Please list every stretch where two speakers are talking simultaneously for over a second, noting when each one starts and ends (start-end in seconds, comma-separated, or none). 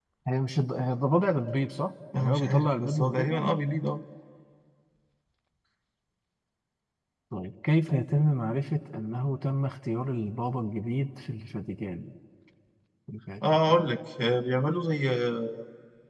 2.1-3.5